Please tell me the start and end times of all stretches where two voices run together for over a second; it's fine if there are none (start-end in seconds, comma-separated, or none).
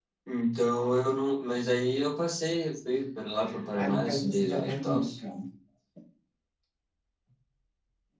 3.8-5.0